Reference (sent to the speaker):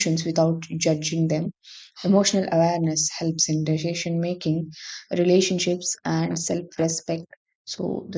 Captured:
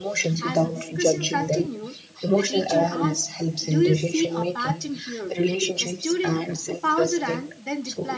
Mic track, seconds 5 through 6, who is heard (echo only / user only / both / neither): both